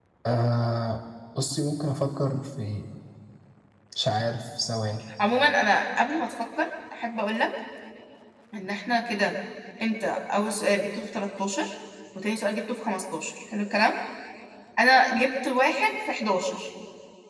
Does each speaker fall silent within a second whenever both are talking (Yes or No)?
Yes